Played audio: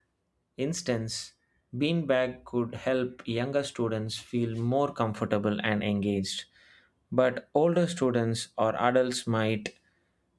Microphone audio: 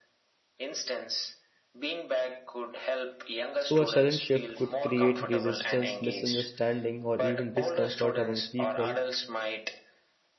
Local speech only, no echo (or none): So, a sudden shift could create resistance, misunderstanding, or even discomfort among people